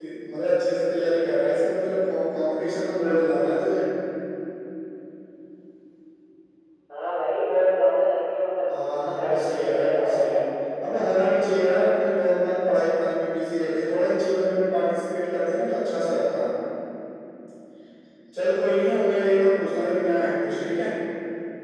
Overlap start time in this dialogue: 9.1 s

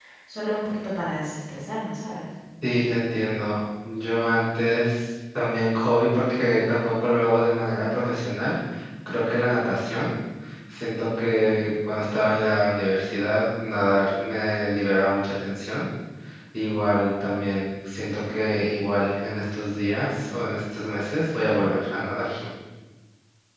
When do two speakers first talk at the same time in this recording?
none

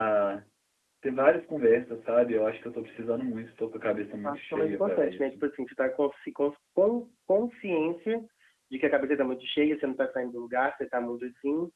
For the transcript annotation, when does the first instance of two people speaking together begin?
4.2 s

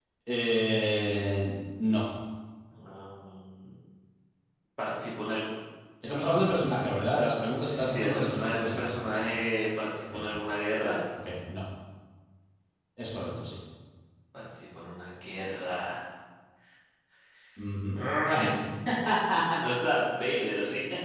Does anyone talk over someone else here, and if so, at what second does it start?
7.6 s

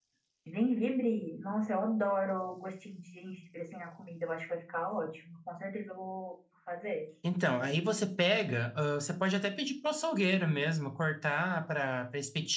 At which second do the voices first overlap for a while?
none

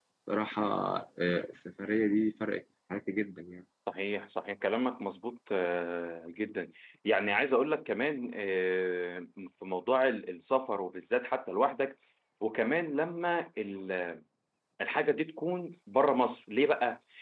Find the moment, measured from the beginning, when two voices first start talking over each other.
none

